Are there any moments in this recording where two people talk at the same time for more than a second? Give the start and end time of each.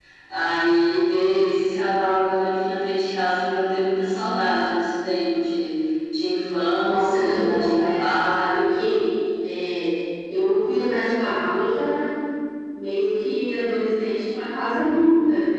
6.8-8.7

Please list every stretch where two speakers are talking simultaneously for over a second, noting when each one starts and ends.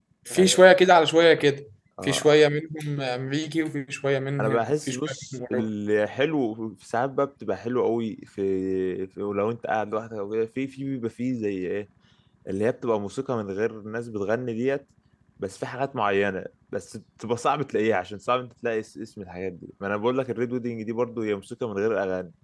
4.4-5.7

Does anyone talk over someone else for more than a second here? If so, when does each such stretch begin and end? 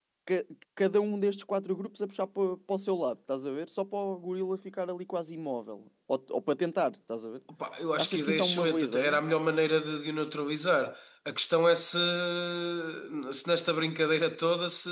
8.0-9.2

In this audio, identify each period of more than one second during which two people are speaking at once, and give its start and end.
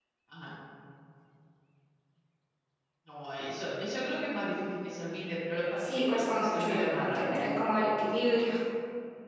5.8-7.4

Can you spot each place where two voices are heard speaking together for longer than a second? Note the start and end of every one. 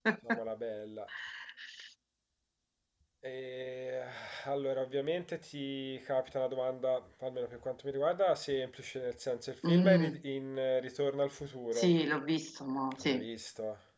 none

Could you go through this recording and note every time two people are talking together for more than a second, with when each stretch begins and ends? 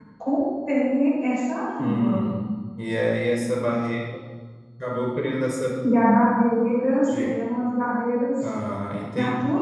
none

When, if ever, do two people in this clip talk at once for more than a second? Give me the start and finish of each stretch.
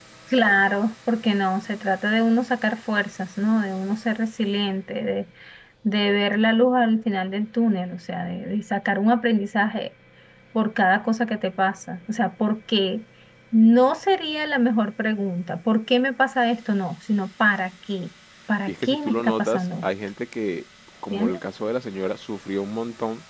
18.7-19.9

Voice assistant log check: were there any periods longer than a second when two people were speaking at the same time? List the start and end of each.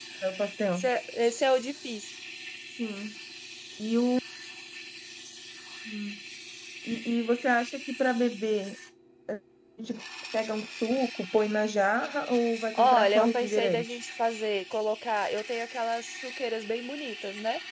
12.8-14.0

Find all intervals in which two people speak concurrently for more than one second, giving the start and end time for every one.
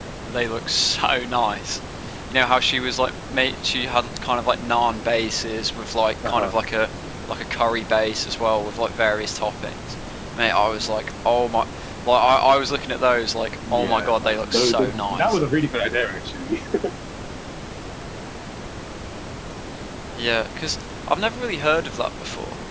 13.7-15.4

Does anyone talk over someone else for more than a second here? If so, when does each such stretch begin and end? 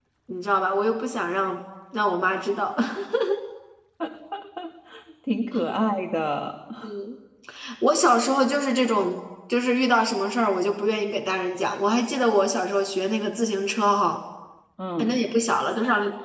none

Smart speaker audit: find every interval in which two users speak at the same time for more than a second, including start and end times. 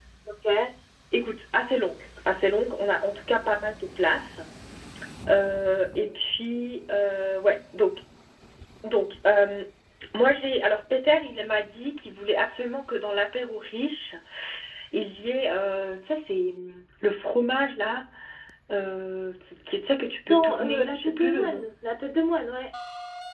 20.3-21.7

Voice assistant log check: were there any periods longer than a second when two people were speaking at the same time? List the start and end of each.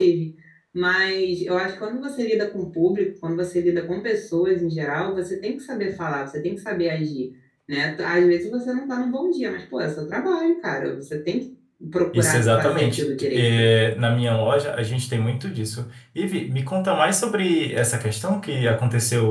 12.1-13.7

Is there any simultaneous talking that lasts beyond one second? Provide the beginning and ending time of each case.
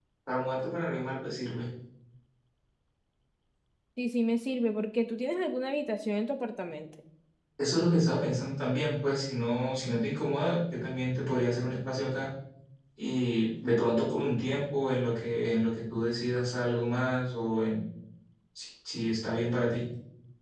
none

